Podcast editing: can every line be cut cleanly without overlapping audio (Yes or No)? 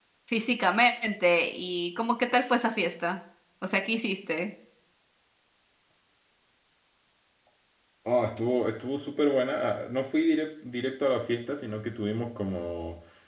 Yes